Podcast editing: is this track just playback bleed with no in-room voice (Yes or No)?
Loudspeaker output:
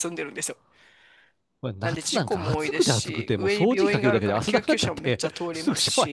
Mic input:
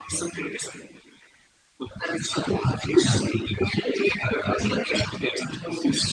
Yes